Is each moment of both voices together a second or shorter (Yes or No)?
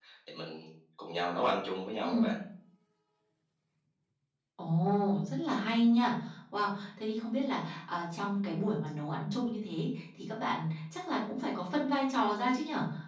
Yes